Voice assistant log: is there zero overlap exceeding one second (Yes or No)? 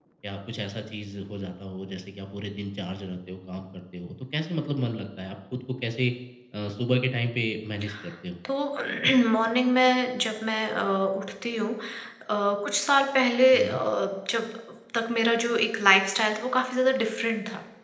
Yes